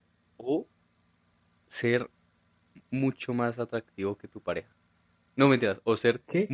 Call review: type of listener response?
listening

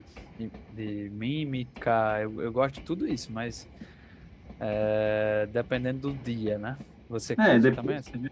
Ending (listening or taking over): taking over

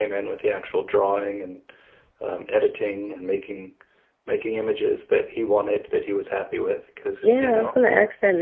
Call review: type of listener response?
taking over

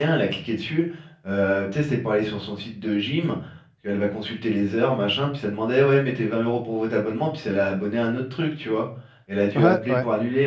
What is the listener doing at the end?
listening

